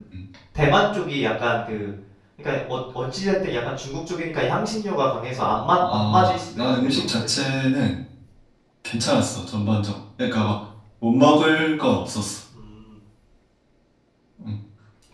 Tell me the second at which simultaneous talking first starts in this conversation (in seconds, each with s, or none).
5.7 s